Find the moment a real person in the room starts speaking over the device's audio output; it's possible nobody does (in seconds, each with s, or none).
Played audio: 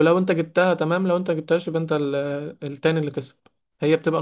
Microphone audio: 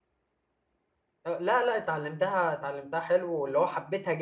1.3 s